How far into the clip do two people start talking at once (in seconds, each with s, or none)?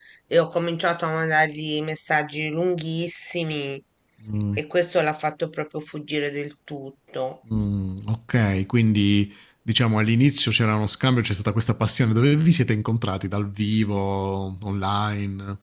none